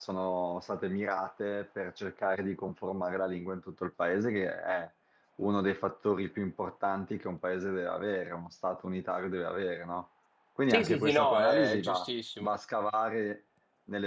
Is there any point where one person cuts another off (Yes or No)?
Yes